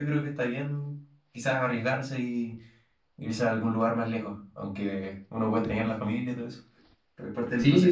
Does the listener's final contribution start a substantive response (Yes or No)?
Yes